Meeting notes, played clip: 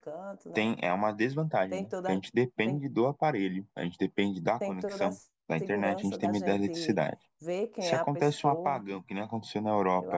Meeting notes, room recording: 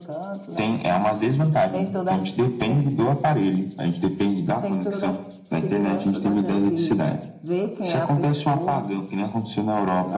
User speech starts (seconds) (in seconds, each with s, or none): none